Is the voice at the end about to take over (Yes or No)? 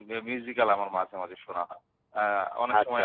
No